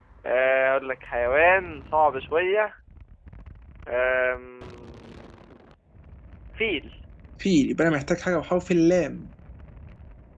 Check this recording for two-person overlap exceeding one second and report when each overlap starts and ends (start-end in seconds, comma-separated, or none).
none